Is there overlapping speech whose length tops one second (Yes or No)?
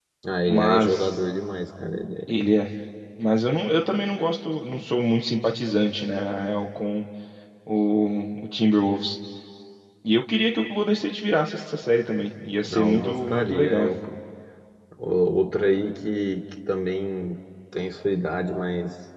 Yes